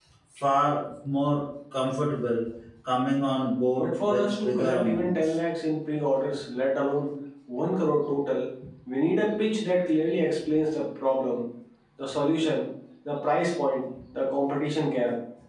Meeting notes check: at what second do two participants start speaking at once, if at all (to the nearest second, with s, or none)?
4 s